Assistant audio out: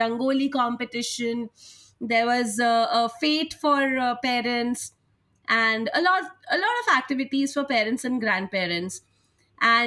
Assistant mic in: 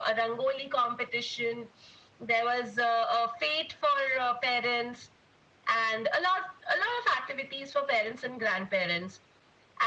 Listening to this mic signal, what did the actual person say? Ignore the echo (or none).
none